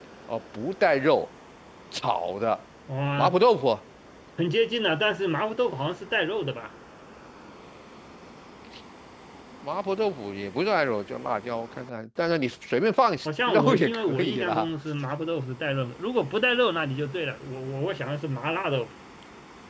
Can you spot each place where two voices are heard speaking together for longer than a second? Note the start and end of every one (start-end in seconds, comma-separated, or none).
13.2-14.7